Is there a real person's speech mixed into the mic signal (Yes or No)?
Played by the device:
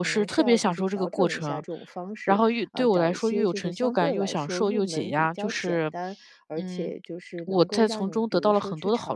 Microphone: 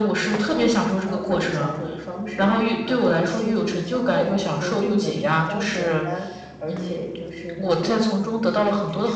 No